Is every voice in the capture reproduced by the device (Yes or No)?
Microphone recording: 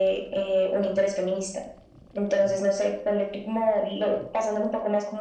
Yes